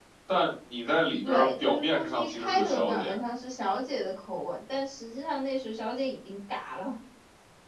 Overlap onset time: 1.2 s

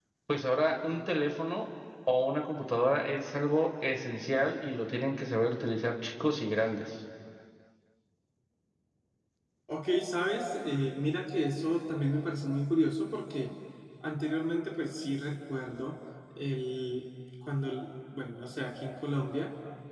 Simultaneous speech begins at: none

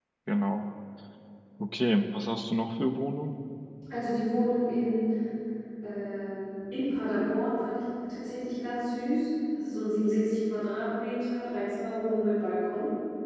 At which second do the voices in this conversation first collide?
none

